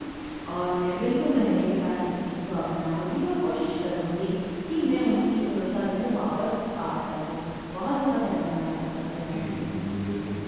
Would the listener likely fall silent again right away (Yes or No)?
No